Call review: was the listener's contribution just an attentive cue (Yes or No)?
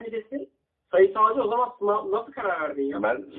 No